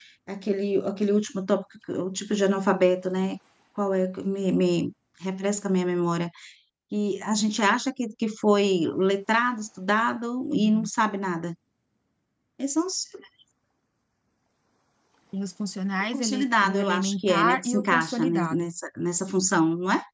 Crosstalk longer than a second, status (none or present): present